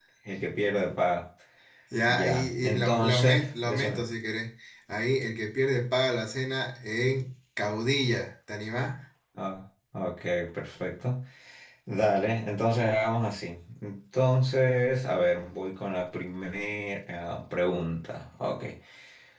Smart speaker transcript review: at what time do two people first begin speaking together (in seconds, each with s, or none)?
2.1 s